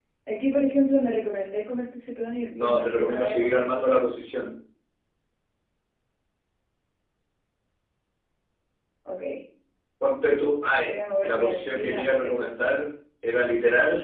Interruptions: present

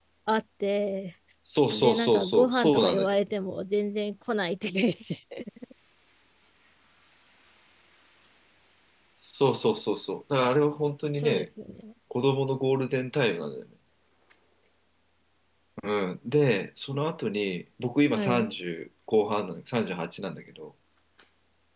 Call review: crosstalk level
present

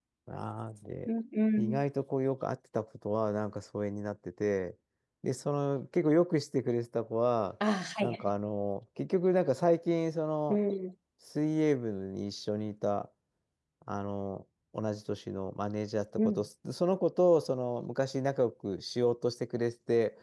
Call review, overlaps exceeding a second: none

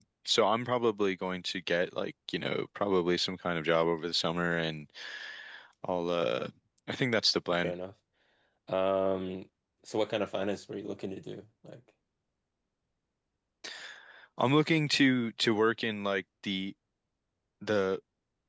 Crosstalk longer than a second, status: none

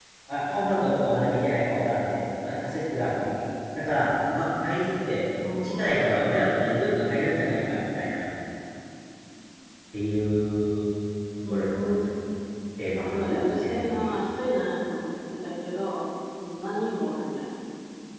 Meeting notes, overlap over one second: present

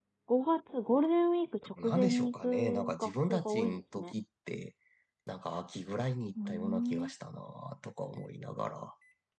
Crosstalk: present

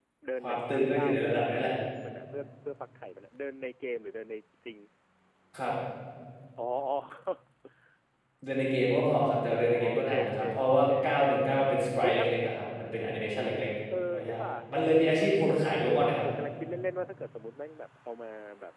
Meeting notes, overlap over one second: present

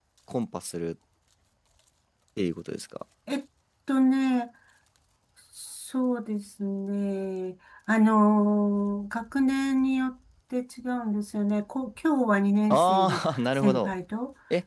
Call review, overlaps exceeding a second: present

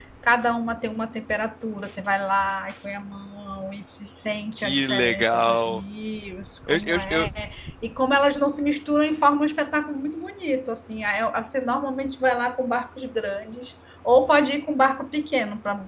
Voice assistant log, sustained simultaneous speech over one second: present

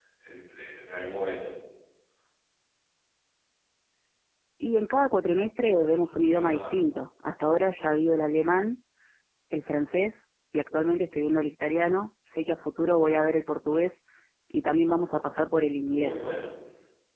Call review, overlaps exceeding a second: none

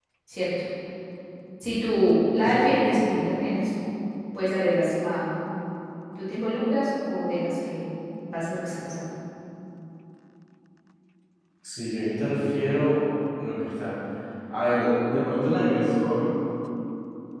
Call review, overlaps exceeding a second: none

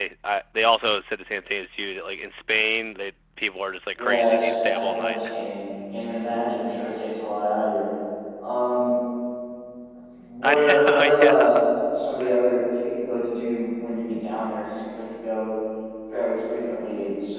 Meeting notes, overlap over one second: present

